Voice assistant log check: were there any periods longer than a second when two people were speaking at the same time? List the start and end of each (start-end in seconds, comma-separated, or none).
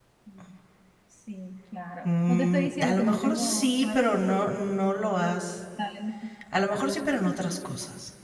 2.0-4.2